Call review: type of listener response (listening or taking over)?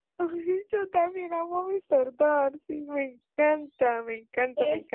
taking over